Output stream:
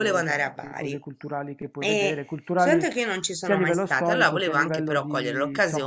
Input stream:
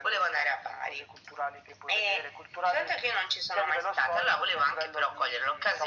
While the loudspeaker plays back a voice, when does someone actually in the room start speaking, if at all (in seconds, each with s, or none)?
none